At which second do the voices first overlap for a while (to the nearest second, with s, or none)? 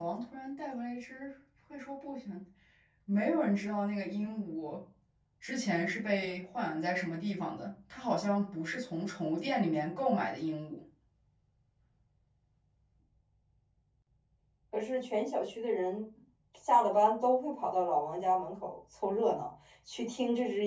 none